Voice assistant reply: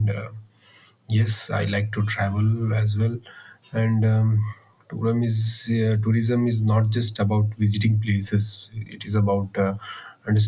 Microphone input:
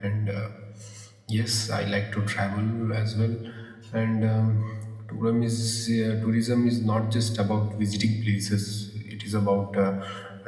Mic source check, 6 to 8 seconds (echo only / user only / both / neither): echo only